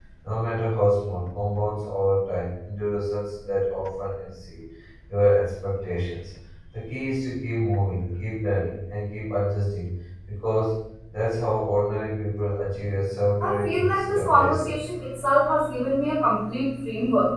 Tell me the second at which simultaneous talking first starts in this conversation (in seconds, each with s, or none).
13.4 s